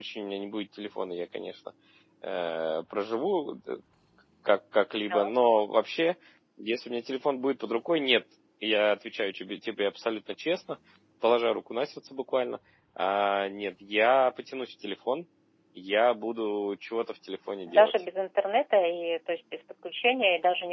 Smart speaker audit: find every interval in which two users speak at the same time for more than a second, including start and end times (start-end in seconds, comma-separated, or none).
none